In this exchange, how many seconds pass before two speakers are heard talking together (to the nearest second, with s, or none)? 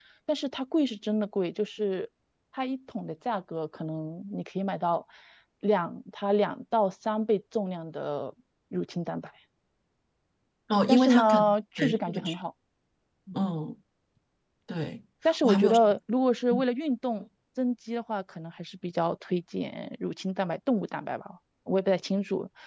11 s